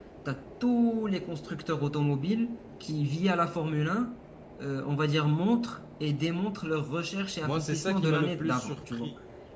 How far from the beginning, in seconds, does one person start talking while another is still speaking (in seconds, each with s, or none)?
7.4 s